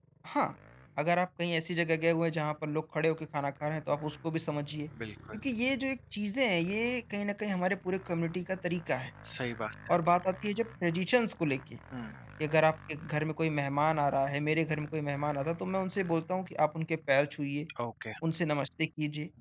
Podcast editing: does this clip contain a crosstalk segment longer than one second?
No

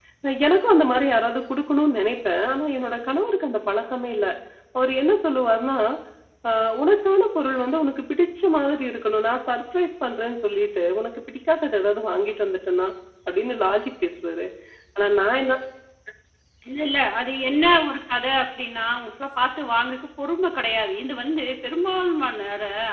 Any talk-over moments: No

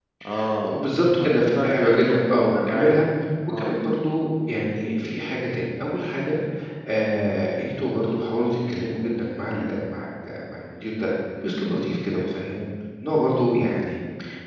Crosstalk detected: Yes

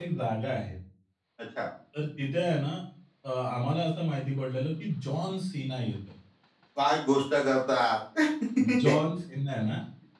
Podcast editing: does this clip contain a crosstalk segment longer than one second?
No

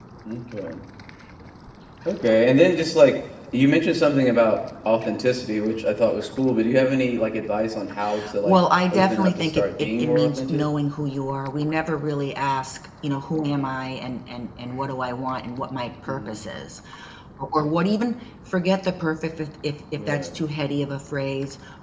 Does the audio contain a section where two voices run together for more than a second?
Yes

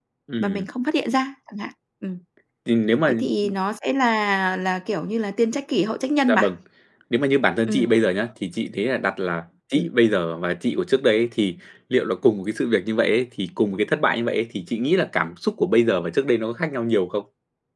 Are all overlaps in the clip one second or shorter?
Yes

